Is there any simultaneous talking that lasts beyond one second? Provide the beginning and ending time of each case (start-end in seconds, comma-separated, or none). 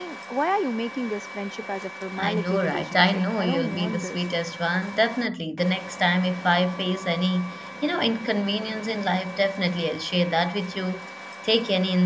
2.2-4.2